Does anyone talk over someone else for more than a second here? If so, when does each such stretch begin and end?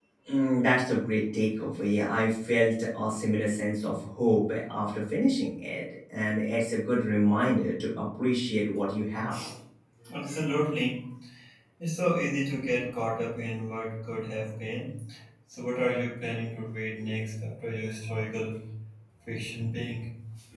none

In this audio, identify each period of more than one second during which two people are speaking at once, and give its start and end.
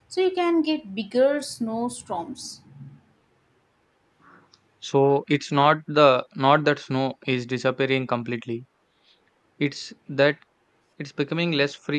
none

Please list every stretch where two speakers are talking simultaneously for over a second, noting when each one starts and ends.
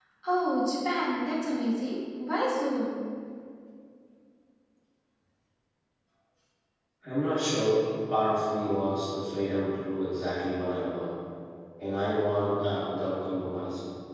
none

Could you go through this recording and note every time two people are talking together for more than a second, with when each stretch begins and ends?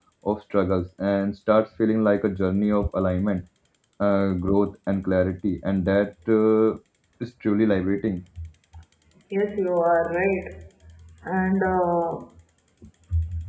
none

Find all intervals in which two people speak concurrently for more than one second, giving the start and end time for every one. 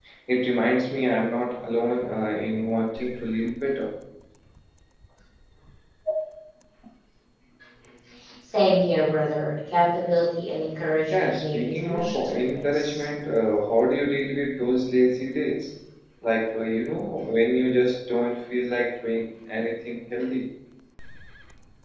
11.1-13.0

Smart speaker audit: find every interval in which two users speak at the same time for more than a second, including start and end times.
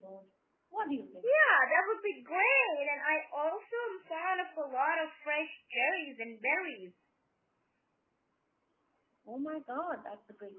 none

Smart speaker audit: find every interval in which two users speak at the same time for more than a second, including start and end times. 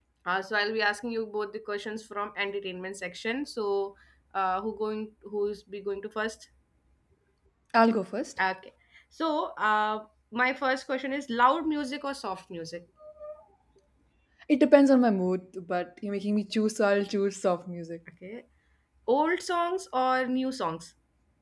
none

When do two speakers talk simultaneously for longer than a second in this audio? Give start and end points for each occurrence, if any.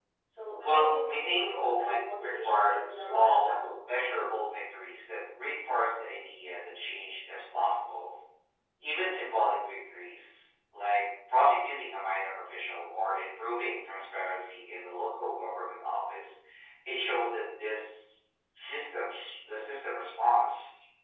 0.6-3.6

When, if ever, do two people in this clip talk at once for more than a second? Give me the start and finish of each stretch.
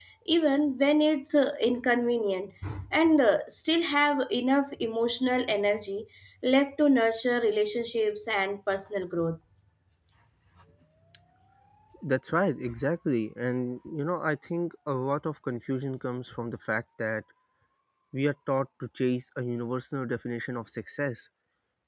none

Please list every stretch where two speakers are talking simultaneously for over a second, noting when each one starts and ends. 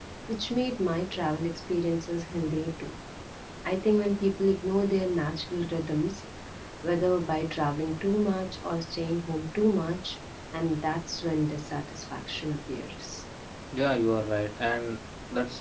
none

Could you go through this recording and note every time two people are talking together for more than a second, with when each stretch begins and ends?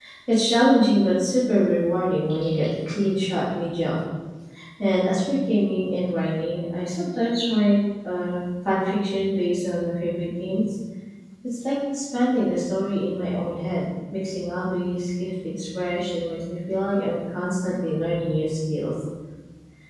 none

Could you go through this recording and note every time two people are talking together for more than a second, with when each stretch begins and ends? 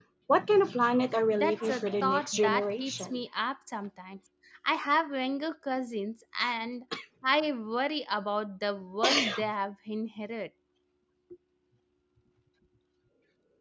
1.3-3.2

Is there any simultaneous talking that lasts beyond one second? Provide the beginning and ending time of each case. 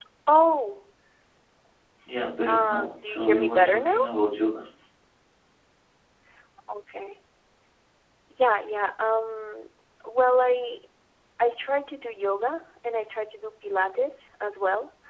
2.5-4.1

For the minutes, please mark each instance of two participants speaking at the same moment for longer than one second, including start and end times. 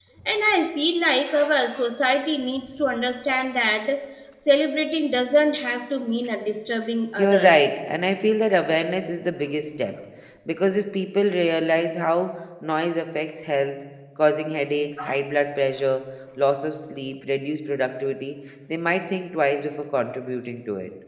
none

